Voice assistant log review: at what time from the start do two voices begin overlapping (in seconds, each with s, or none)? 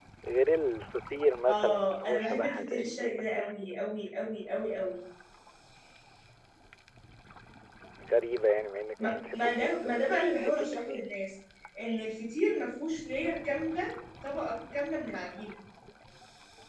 1.5 s